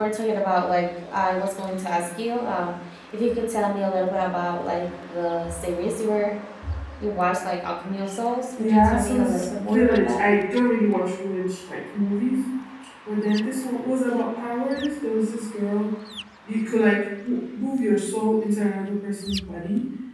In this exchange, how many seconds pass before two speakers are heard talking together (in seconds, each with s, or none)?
8.6 s